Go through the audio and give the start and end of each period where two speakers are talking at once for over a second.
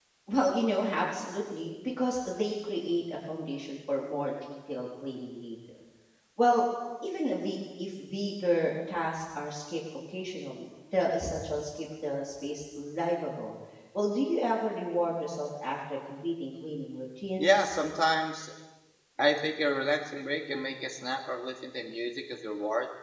none

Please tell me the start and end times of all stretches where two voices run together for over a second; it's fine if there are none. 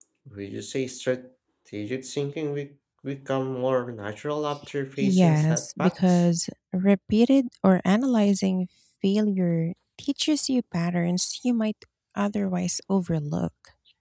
5.0-6.2

